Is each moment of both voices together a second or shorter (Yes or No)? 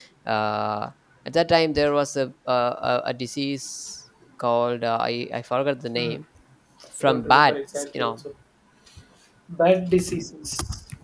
No